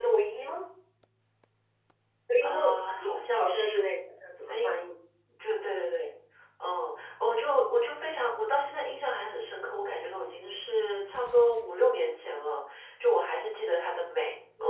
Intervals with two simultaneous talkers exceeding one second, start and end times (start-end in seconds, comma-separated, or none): 2.4-3.8